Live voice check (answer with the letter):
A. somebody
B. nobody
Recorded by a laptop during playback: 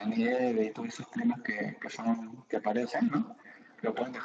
B